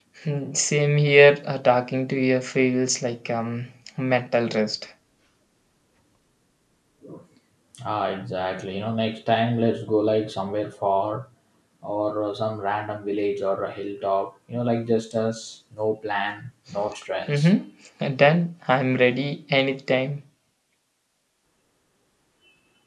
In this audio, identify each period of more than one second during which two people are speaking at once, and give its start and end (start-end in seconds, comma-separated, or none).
none